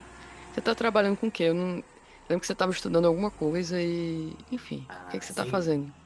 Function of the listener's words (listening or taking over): taking over